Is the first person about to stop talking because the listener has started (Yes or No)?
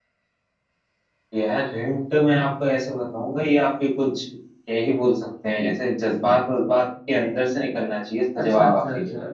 Yes